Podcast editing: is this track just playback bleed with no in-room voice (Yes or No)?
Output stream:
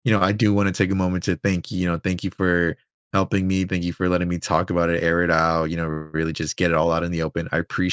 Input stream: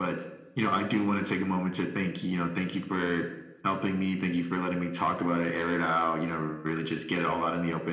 Yes